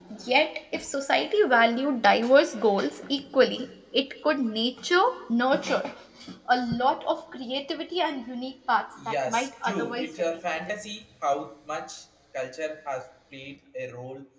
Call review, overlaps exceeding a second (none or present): present